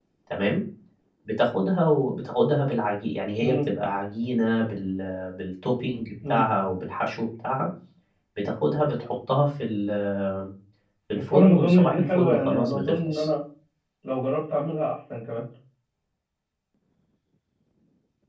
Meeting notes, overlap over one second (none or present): present